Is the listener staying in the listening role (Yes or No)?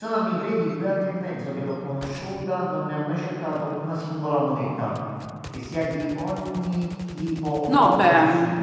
No